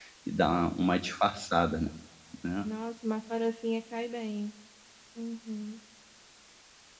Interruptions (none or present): none